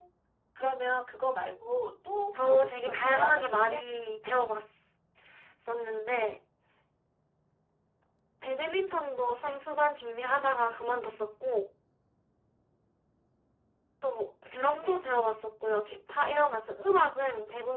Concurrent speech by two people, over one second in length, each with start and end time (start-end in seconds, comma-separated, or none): 2.4-3.8